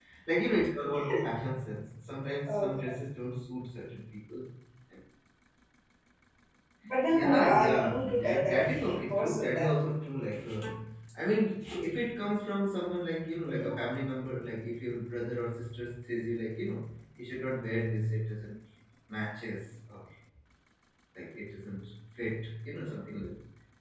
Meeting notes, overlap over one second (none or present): present